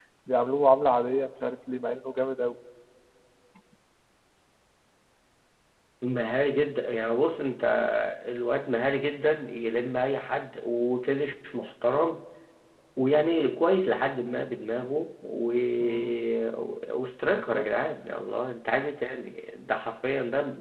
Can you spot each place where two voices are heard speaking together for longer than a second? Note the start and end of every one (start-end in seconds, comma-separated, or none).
none